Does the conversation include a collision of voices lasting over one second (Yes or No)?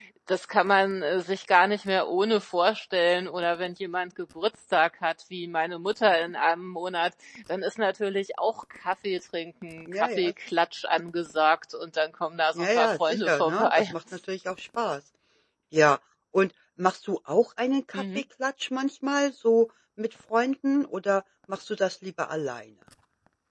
Yes